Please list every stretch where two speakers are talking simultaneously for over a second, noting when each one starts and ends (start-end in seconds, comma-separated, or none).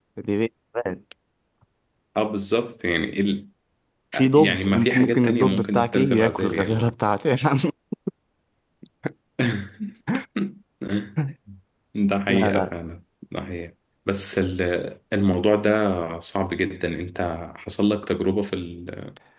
4.1-6.9